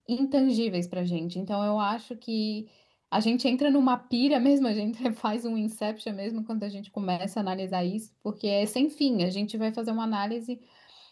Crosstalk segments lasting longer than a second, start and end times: none

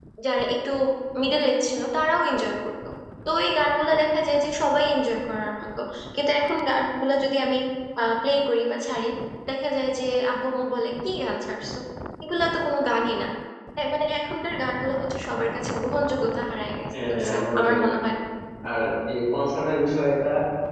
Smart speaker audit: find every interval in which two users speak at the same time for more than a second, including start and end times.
16.9-18.1

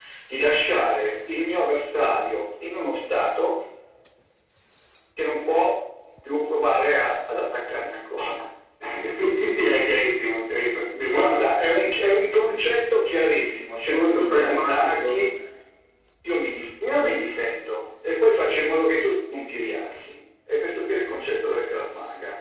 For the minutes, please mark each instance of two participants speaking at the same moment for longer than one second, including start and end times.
13.9-15.3

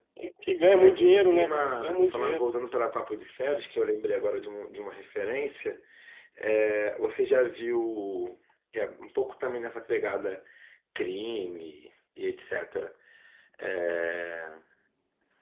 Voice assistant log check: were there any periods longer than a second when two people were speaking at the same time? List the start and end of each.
0.7-2.4

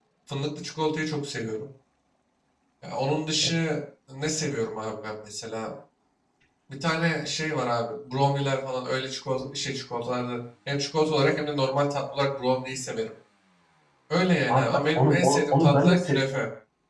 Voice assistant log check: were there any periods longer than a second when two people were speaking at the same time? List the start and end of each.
14.5-16.2

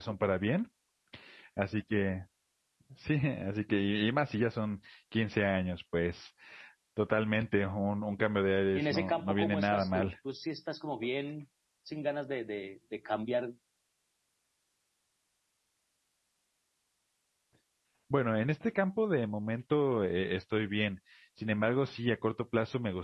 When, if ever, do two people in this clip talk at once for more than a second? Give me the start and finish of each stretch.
8.7-10.1

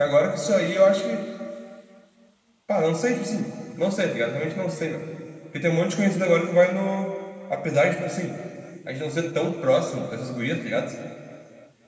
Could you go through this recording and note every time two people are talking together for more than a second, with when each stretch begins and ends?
none

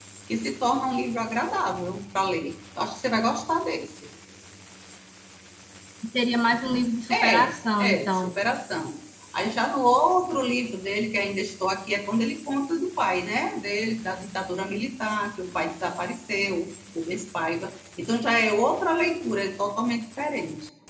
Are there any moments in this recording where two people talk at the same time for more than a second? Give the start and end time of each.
7.1-8.3

